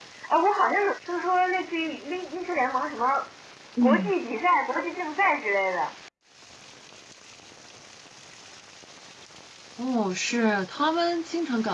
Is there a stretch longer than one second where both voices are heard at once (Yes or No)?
No